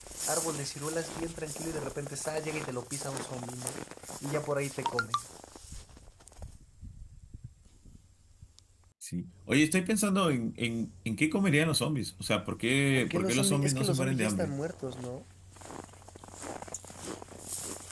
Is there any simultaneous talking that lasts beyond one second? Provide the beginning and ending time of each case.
12.9-14.5

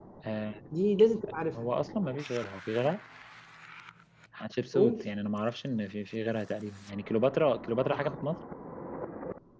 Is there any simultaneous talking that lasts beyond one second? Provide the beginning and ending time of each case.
none

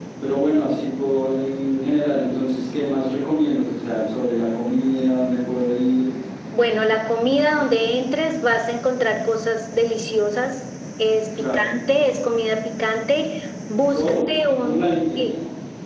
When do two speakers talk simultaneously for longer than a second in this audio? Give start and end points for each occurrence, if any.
13.9-15.4

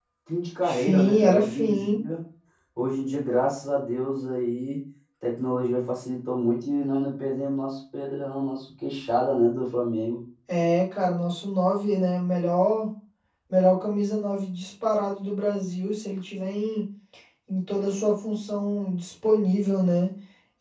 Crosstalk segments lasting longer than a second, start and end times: 0.7-2.0

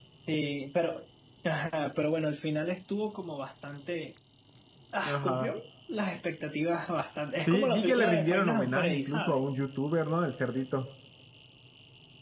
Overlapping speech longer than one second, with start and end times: 7.5-9.4

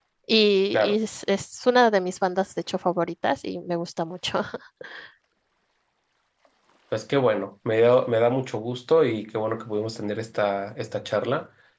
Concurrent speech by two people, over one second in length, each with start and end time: none

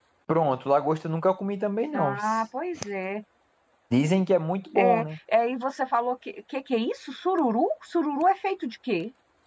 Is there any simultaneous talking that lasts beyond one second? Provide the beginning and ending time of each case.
none

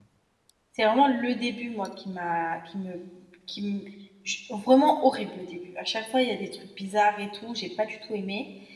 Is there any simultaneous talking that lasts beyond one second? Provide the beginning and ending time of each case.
none

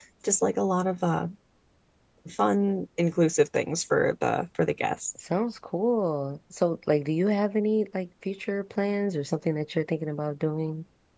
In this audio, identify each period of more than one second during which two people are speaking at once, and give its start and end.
none

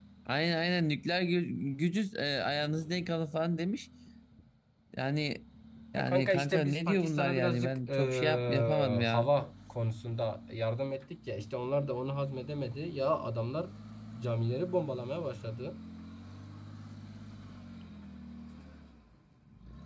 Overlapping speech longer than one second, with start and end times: 6.0-9.3

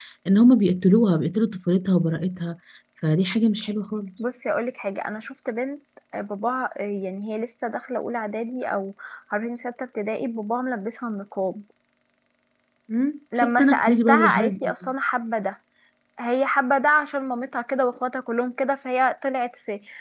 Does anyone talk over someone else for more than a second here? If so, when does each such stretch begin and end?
13.4-14.9

